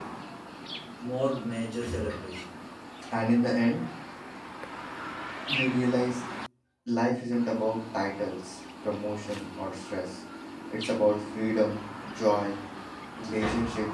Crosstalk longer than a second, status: none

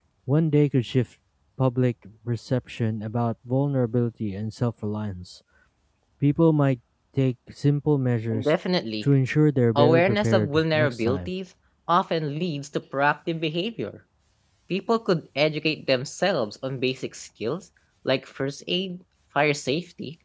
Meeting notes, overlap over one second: present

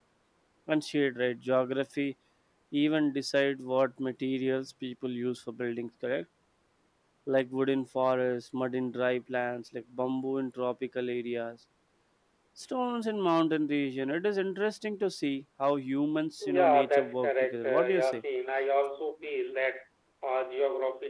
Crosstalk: present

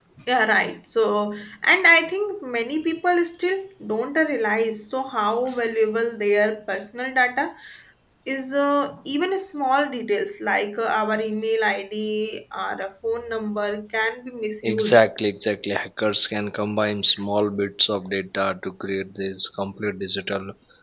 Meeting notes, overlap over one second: none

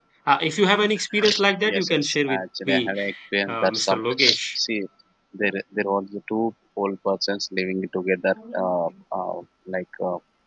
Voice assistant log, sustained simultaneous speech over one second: present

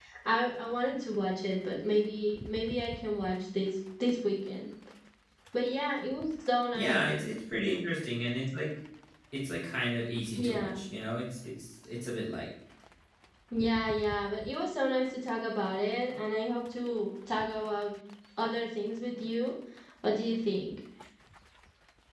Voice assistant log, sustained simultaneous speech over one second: none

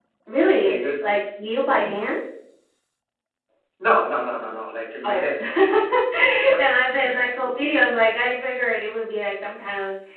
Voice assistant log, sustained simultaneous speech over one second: none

